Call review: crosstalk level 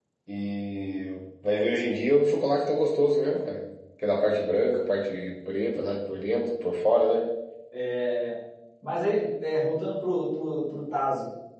none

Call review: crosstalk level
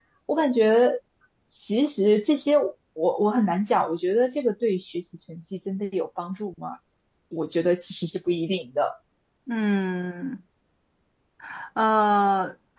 none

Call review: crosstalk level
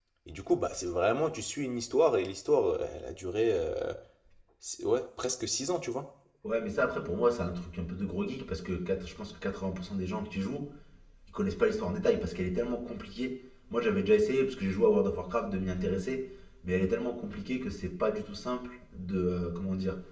none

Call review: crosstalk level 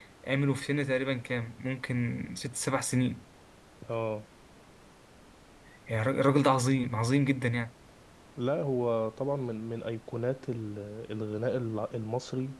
none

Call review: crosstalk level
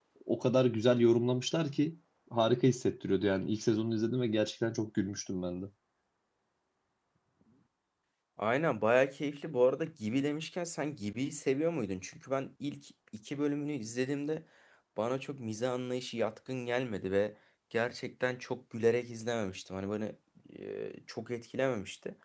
none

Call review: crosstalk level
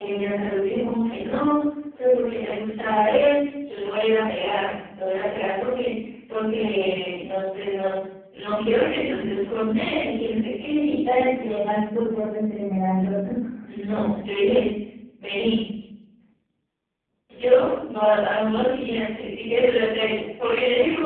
none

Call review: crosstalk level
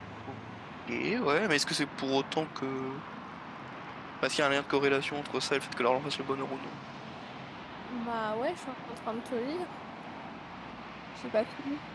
none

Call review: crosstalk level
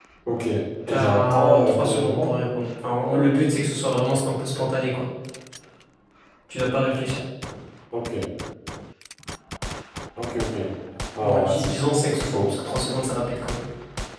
present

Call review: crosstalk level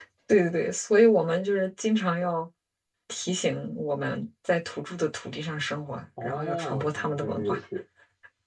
present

